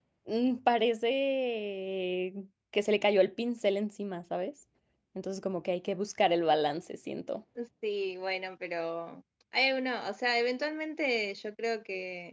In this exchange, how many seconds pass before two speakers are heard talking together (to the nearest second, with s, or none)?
none